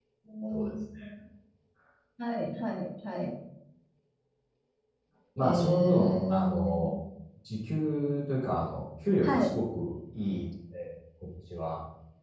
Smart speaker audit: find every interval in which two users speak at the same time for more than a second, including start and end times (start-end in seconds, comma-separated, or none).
5.4-6.9